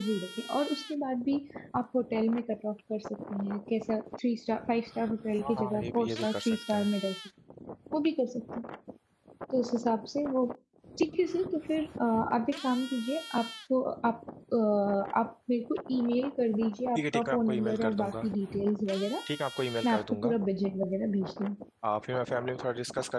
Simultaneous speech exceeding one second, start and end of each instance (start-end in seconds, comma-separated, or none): 5.4-6.9, 17.0-18.3